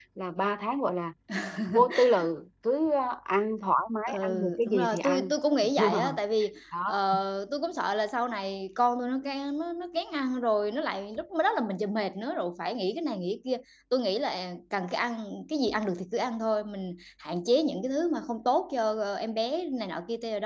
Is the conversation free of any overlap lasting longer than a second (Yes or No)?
No